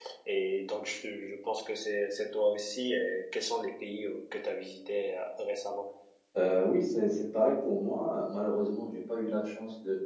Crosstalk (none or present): none